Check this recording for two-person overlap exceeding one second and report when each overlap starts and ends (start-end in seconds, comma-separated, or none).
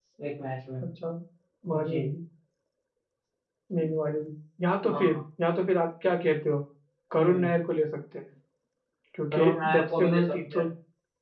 9.3-10.6